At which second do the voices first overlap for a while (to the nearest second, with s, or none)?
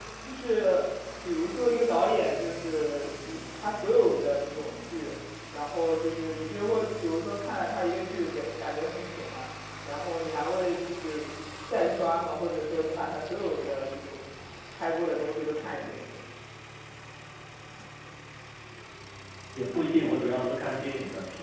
none